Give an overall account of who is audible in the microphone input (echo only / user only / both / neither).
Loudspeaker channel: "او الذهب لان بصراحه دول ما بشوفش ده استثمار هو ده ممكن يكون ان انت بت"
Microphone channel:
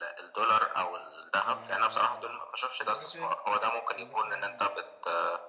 both